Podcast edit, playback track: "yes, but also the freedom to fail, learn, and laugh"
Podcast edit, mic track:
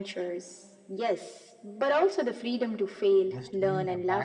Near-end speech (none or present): present